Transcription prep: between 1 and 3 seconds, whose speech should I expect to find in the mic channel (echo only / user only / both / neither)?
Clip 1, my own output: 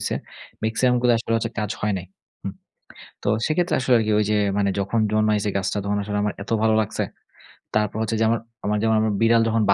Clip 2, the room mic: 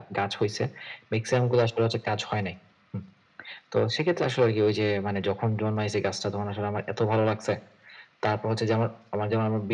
echo only